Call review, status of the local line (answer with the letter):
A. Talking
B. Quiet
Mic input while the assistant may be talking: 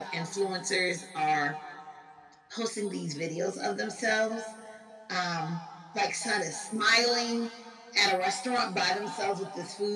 B